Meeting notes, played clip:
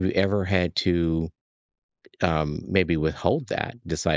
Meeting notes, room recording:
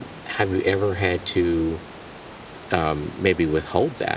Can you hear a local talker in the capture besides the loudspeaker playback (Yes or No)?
No